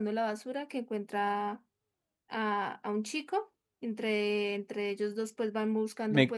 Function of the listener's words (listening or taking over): taking over